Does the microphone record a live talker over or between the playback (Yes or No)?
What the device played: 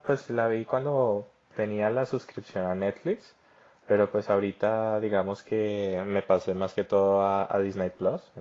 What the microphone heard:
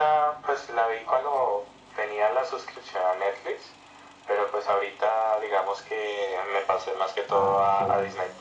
Yes